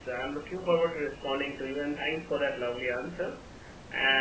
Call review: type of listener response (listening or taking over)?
listening